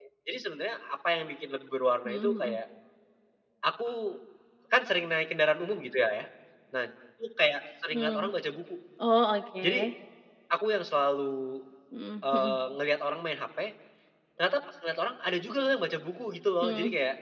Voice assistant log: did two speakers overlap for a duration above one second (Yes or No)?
No